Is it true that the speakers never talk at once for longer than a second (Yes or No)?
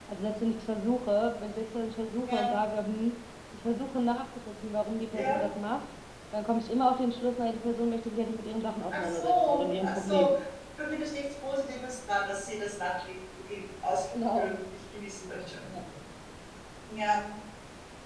No